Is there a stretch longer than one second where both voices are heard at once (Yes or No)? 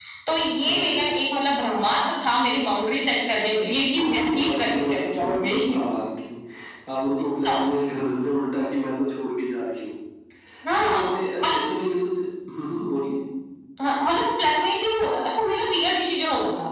Yes